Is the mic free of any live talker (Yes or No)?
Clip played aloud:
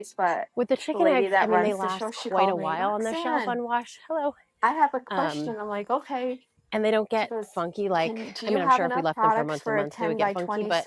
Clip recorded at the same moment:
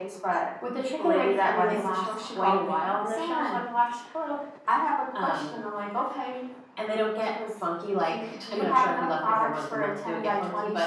Yes